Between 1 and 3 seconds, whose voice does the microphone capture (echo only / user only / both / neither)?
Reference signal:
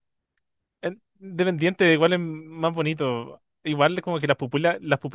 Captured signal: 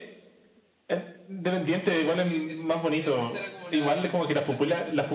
both